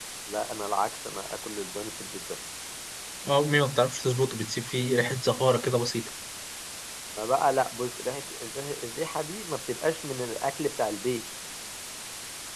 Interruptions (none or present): none